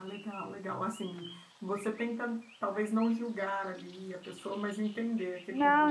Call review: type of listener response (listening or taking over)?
taking over